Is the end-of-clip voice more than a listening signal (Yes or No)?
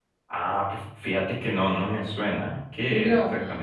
Yes